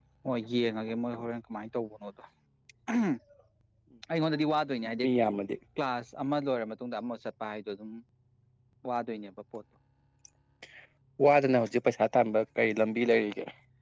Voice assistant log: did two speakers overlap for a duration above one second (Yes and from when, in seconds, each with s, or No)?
No